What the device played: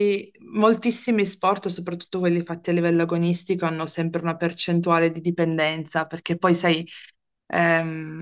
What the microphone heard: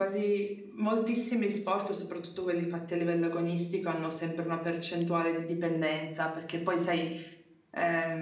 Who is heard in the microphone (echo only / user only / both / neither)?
echo only